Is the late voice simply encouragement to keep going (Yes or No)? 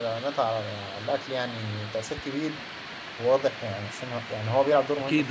No